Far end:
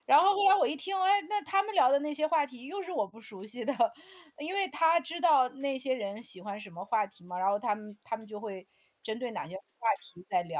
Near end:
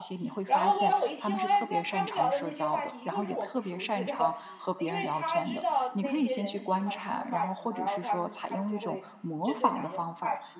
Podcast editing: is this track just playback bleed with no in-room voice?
No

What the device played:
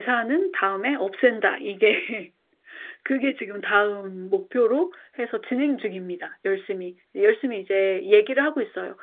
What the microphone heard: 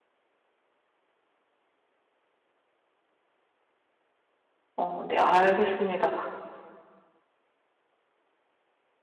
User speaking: Yes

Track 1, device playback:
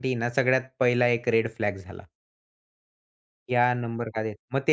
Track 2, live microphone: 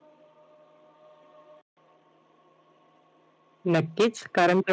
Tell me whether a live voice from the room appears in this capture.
Yes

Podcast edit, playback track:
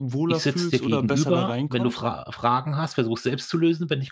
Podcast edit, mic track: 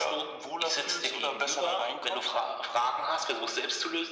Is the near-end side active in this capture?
No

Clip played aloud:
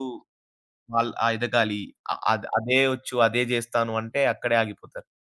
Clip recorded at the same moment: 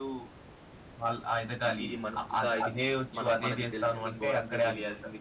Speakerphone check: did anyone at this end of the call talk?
Yes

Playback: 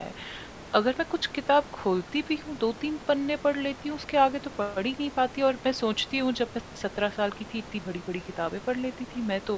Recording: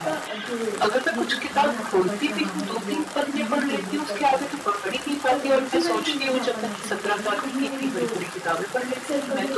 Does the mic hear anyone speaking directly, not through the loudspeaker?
Yes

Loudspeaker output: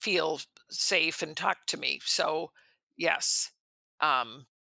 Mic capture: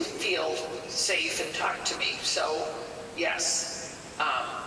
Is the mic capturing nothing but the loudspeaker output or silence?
Yes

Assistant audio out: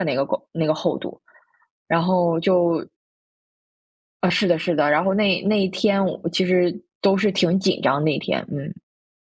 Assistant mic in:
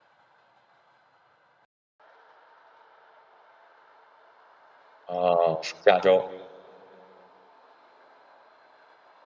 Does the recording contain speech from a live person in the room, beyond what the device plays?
Yes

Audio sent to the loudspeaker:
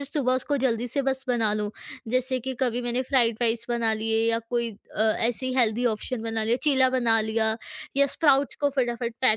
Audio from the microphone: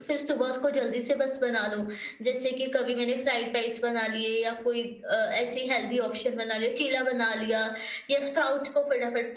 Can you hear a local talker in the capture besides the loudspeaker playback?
No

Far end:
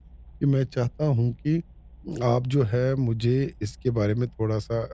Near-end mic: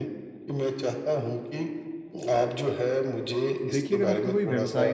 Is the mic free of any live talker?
No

